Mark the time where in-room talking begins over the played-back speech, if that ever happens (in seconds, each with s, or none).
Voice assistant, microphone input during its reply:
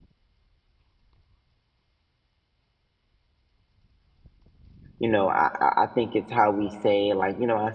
5.0 s